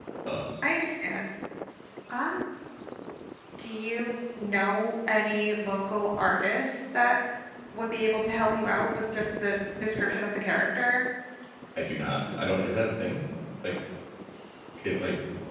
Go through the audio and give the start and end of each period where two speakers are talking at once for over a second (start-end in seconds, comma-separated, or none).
none